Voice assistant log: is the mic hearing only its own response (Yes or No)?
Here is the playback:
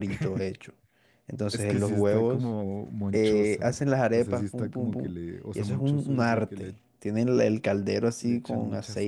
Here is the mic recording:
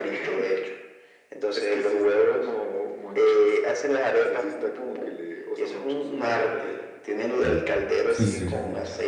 No